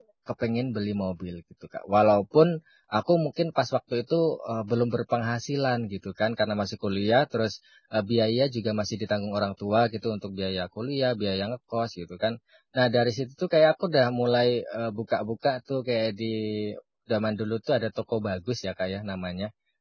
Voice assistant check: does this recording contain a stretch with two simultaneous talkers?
No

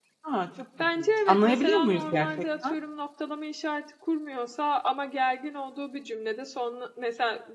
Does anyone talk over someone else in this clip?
Yes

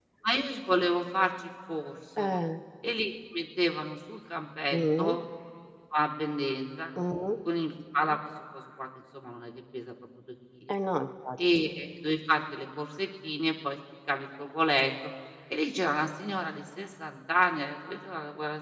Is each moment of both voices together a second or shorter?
Yes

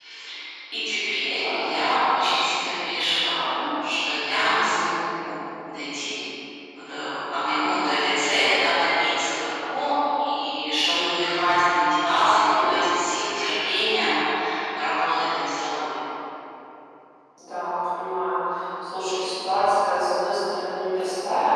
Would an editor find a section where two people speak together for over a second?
No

